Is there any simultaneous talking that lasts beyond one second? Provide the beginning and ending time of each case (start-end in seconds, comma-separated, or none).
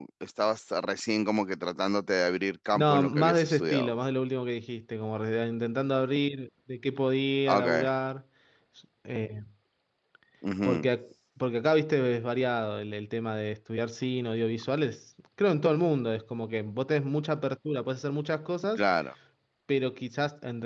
2.8-4.0